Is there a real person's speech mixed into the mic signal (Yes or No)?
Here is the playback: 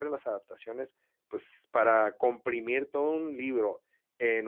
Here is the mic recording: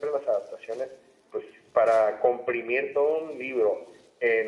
No